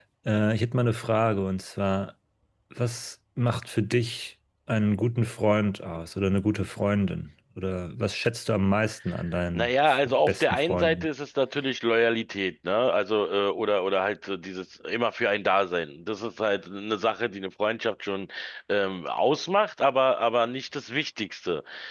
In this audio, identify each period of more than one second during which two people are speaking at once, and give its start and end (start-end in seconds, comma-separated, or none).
9.6-11.1